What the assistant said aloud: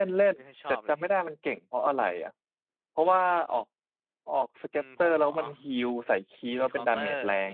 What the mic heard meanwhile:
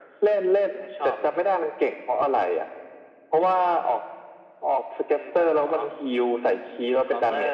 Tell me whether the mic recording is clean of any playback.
No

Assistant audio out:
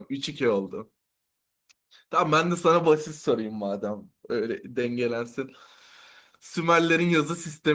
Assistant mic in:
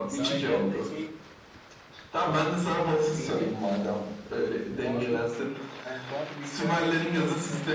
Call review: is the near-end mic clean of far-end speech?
No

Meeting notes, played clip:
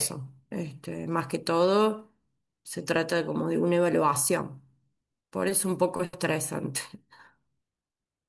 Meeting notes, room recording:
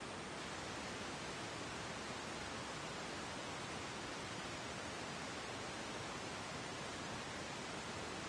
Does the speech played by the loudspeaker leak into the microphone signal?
No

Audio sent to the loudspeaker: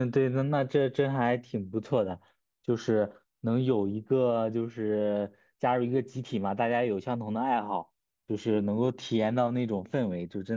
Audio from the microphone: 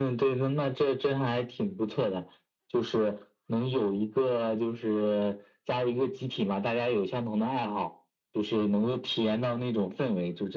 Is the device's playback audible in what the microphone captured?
Yes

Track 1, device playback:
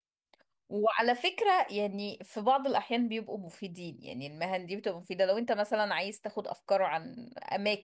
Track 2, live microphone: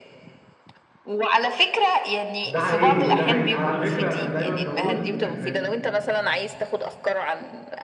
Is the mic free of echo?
No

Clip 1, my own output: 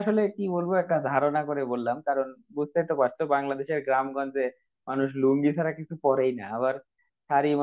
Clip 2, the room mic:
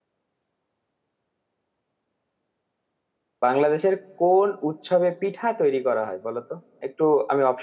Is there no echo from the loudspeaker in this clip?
Yes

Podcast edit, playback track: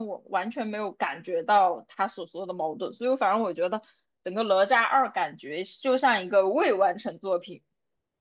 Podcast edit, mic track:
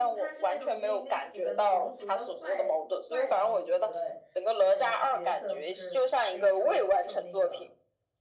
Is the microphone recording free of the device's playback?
No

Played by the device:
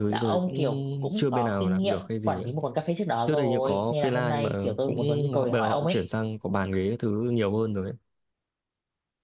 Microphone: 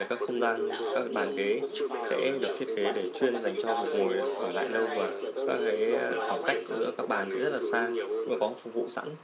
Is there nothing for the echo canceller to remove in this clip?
No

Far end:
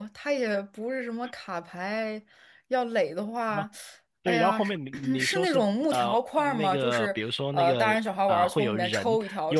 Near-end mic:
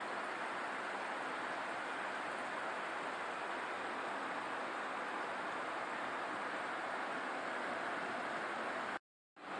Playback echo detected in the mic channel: No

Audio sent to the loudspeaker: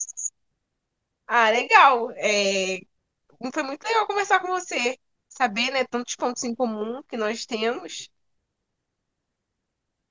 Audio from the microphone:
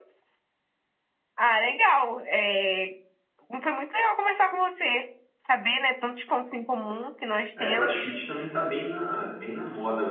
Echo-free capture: No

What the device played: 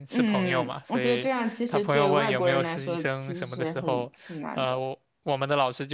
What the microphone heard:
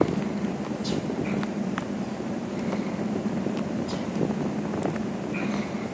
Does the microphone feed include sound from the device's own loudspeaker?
No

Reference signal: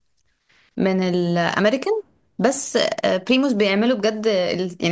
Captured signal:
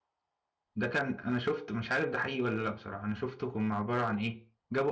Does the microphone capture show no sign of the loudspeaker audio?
Yes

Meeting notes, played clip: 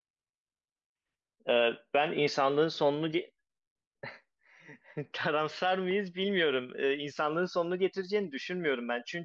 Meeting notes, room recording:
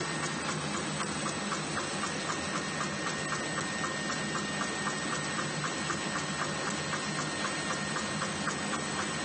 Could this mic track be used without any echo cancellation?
Yes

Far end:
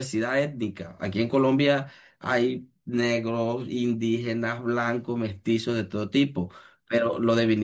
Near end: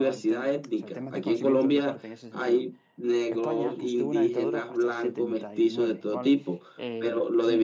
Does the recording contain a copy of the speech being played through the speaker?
Yes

